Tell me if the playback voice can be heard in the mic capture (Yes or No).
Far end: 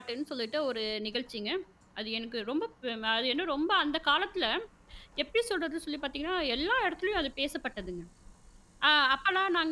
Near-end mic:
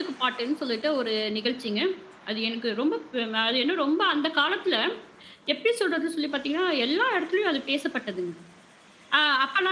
Yes